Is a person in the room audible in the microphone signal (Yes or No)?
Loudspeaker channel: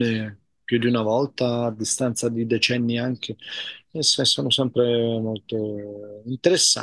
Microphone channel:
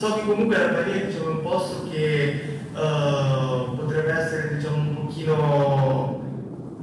Yes